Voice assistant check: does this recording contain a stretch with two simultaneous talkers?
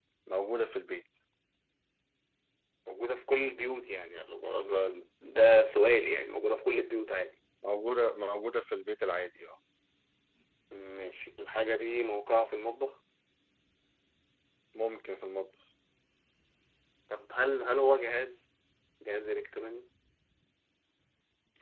No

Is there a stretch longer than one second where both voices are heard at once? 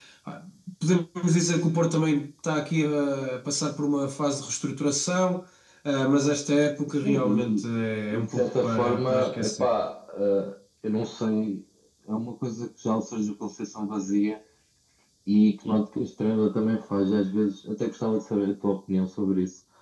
Yes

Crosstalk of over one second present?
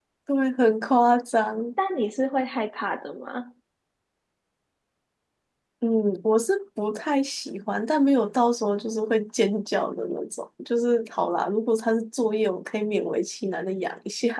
No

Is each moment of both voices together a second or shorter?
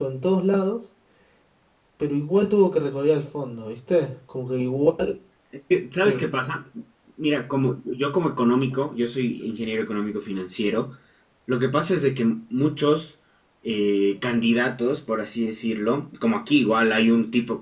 Yes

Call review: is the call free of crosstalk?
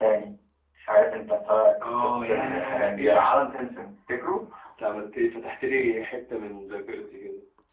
No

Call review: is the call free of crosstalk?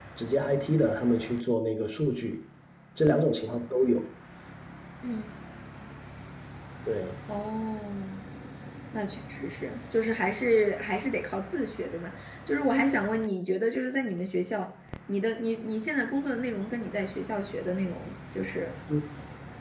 Yes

